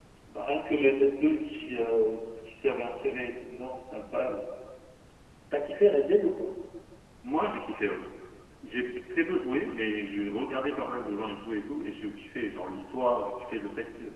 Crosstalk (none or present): present